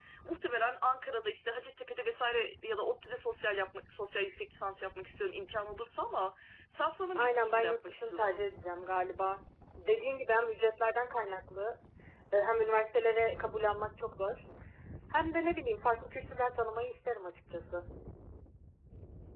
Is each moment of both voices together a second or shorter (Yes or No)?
No